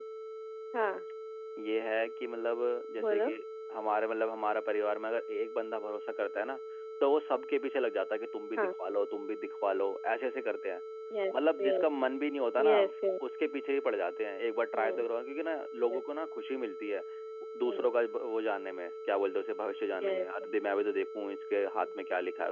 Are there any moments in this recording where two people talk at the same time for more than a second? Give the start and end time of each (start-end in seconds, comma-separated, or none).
none